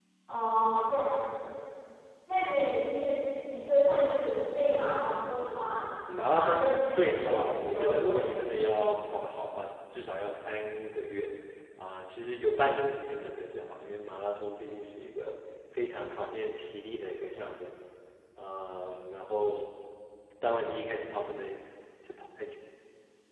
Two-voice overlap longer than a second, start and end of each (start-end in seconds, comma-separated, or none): 6.3-8.4